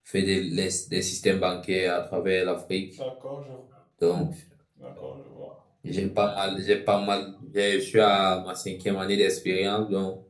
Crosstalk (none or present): none